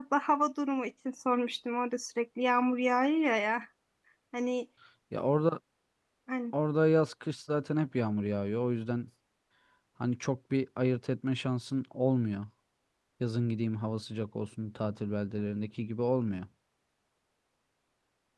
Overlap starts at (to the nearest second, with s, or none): none